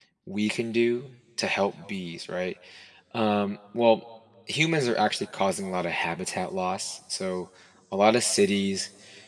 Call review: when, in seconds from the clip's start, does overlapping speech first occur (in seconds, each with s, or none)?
none